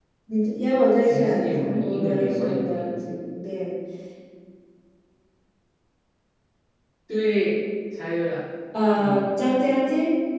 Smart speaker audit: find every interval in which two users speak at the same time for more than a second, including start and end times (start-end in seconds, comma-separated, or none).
1.0-2.9